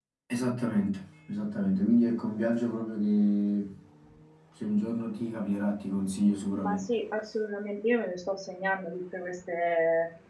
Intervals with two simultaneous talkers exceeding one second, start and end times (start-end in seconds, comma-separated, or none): none